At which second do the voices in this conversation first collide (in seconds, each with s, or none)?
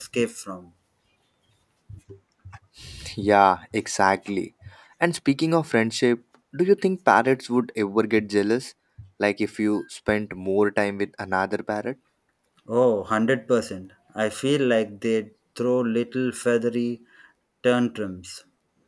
none